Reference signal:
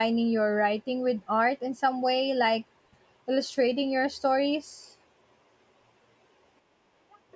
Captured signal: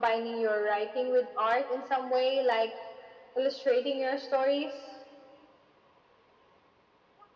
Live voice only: none

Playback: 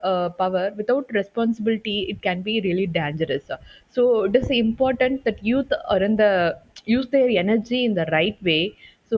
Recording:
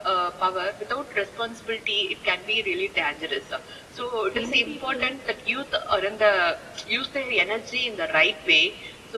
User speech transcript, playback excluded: young people

